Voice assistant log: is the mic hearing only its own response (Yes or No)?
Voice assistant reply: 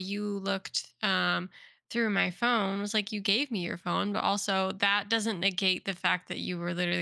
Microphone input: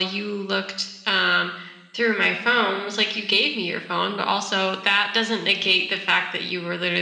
Yes